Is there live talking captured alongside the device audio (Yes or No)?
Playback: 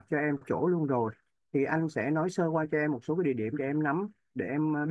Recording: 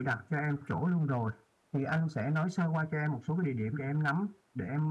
No